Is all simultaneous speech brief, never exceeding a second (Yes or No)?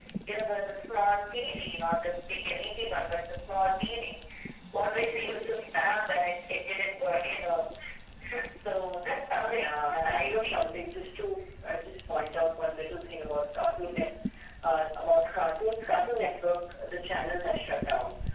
No